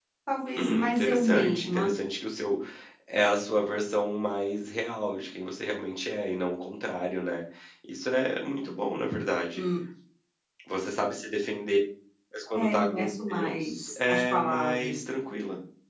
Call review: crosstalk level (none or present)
present